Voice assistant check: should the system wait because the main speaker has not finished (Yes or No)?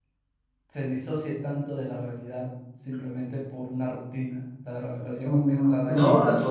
No